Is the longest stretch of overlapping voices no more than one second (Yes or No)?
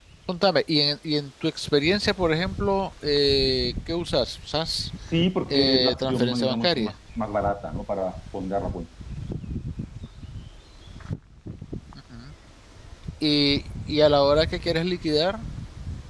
No